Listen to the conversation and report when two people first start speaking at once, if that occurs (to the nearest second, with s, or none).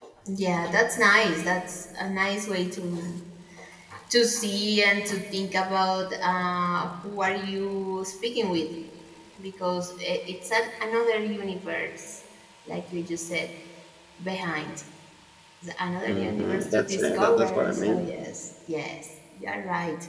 16 s